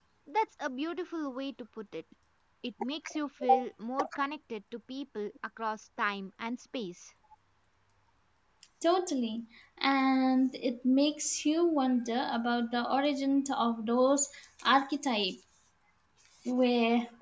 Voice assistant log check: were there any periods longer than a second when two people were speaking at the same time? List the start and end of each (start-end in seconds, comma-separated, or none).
none